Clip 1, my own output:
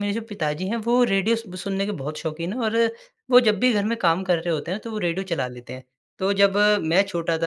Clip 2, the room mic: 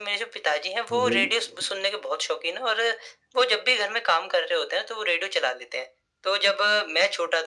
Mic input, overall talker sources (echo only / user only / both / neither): both